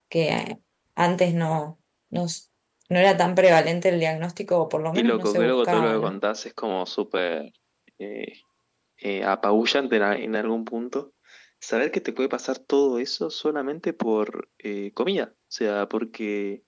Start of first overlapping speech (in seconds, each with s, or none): 5.0 s